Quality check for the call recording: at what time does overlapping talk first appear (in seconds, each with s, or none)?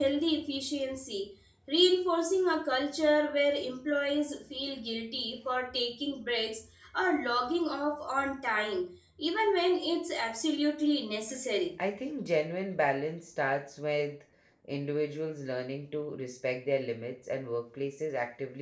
none